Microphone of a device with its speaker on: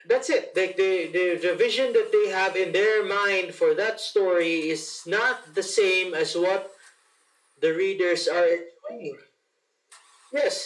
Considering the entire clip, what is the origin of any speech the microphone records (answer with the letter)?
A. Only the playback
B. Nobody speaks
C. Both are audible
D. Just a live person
A